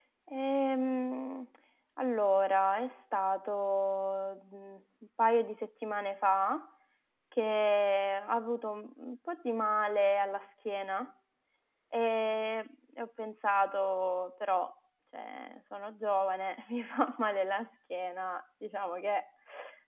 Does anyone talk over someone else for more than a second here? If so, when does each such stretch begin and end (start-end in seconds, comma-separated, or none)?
none